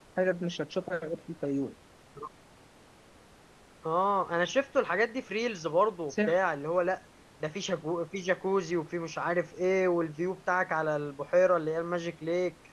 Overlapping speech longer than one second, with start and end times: none

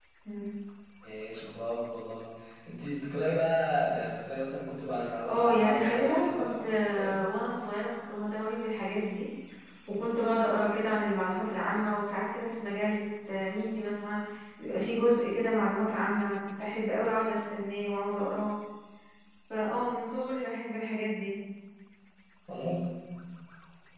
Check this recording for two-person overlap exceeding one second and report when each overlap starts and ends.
5.3-7.2

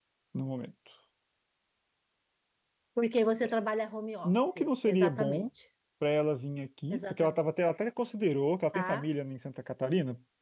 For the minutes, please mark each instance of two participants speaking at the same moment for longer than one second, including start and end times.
4.2-5.5

